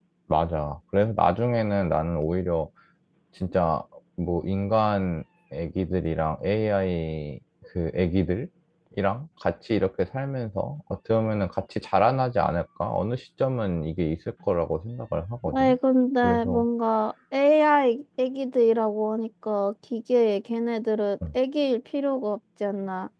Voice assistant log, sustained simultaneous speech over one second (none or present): none